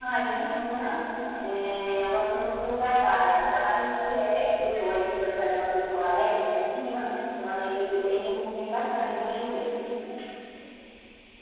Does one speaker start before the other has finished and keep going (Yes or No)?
No